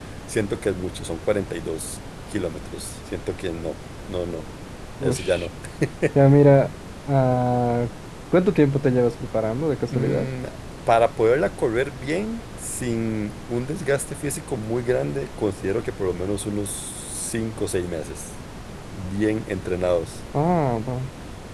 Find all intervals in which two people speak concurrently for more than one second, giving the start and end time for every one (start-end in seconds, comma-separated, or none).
none